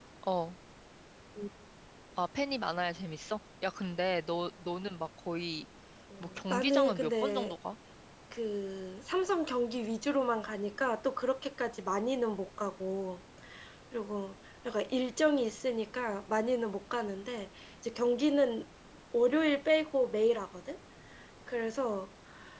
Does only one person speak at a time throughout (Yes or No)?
No